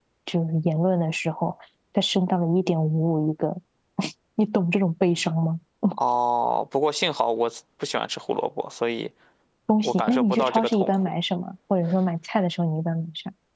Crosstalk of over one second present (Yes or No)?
Yes